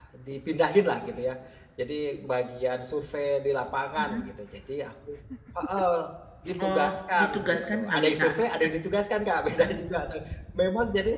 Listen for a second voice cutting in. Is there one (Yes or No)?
Yes